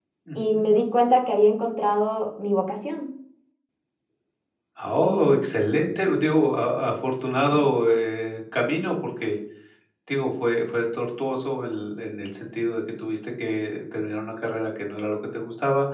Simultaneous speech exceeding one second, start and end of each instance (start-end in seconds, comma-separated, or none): none